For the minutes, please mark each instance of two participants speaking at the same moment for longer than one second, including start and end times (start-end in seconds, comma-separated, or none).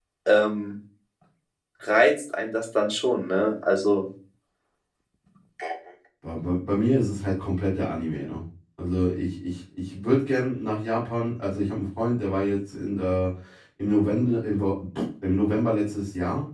none